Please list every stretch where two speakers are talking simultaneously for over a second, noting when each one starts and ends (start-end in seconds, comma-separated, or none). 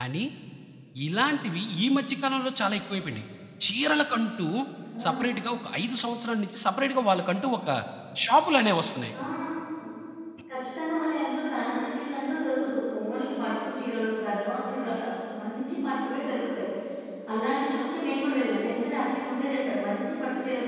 none